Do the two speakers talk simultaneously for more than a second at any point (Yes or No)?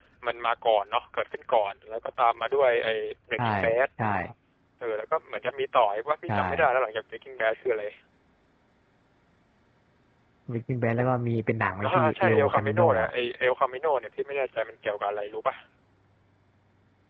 Yes